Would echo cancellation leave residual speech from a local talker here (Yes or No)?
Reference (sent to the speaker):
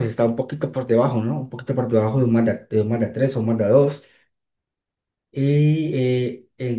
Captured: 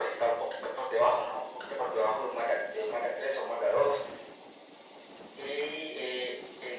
No